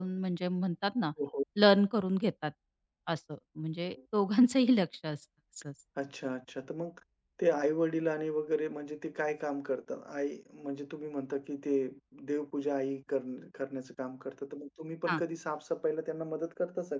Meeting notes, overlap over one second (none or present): none